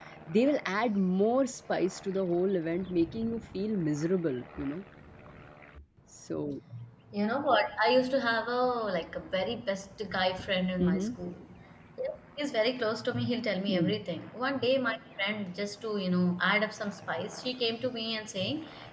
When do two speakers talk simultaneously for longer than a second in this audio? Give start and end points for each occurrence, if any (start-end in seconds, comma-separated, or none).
none